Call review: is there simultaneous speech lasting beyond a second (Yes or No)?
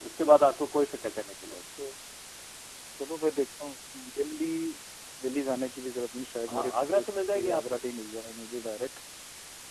Yes